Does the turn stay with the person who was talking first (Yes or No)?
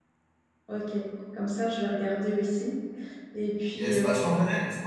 No